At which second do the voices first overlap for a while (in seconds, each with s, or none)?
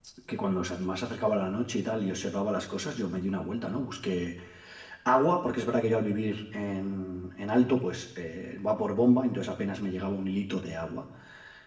none